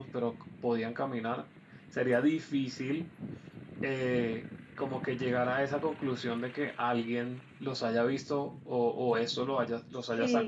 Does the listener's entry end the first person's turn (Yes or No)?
Yes